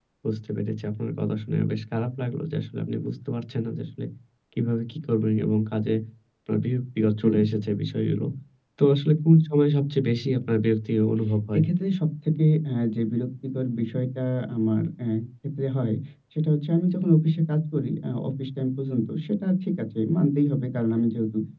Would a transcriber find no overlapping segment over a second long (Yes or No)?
Yes